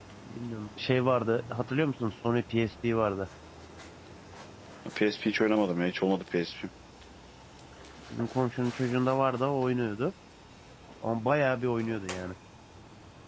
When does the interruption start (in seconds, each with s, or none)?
none